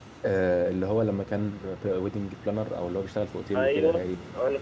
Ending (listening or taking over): taking over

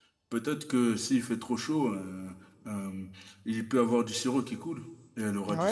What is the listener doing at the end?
taking over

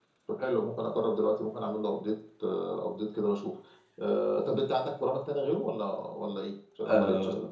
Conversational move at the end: taking over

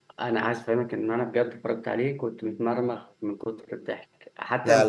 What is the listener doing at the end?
listening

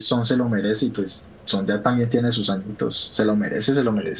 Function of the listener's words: taking over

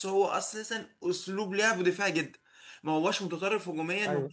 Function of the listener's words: listening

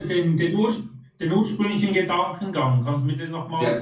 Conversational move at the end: taking over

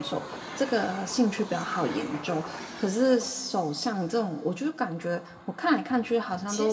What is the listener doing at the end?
listening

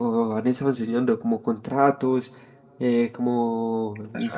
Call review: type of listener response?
listening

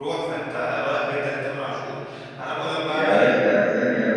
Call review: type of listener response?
taking over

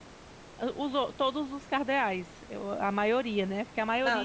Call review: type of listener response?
taking over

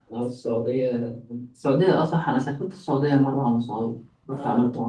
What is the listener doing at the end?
taking over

